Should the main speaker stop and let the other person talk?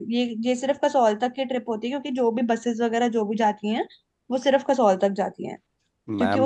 No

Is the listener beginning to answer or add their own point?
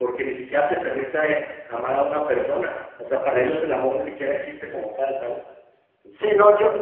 Yes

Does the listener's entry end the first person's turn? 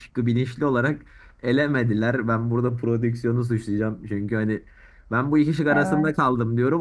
No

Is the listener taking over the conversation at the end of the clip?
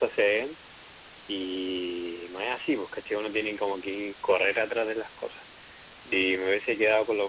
No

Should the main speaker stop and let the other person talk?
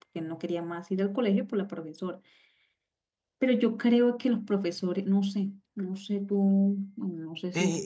Yes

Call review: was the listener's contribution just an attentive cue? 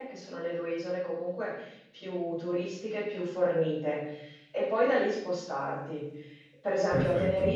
Yes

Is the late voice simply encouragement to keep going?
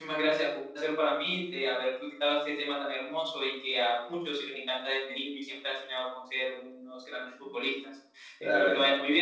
Yes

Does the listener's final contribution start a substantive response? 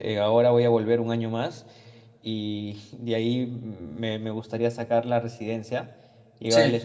No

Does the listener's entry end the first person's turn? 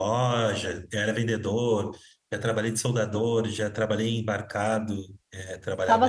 Yes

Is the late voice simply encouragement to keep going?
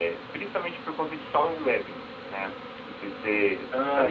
No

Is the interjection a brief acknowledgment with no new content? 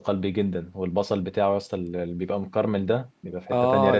No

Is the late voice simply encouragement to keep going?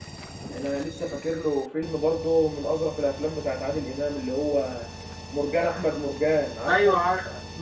No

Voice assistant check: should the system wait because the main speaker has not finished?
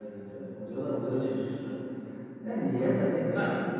Yes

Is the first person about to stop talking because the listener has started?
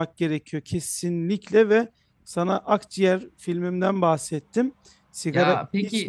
No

